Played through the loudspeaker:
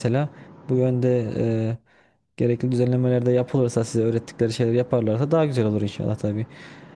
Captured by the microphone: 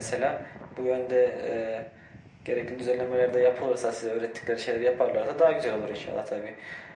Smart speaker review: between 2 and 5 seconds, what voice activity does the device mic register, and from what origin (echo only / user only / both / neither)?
echo only